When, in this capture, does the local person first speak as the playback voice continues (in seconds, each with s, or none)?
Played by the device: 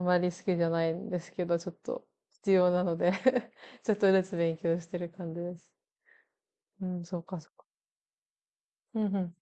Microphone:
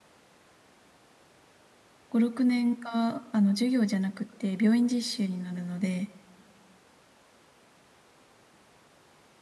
2.1 s